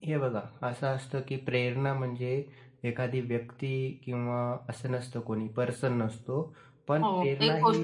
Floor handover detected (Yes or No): Yes